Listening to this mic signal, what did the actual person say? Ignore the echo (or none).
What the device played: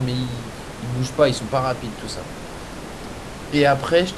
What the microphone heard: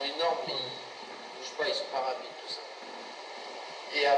Ouais.